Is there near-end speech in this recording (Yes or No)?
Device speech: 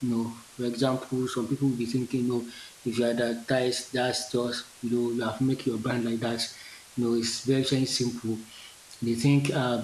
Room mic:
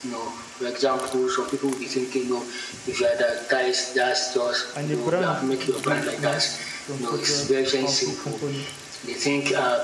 Yes